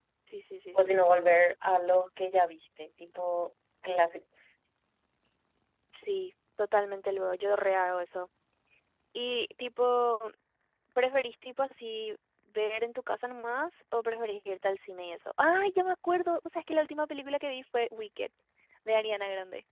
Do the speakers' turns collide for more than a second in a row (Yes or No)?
No